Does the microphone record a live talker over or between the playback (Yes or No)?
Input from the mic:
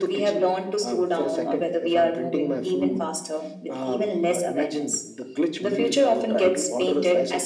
No